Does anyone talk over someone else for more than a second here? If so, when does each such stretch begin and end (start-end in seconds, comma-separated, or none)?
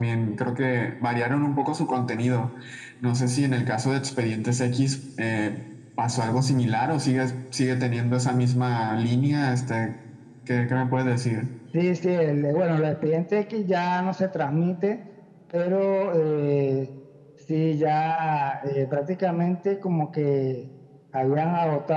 none